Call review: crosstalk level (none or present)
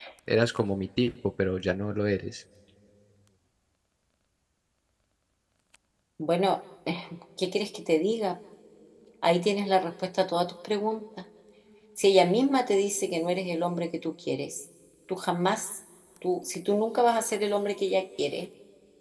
none